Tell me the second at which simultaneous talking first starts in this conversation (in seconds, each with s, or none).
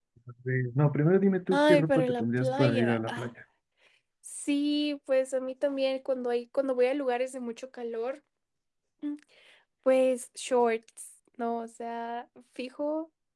1.5 s